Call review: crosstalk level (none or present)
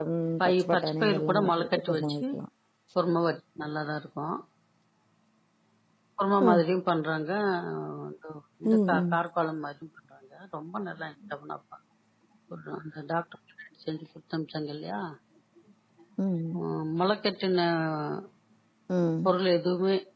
present